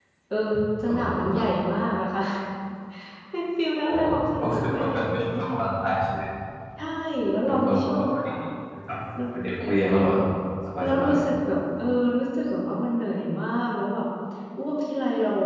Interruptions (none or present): present